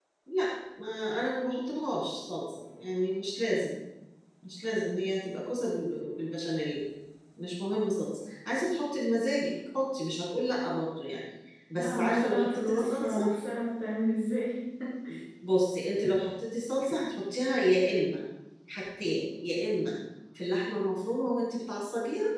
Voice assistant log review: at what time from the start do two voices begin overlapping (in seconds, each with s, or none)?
11.8 s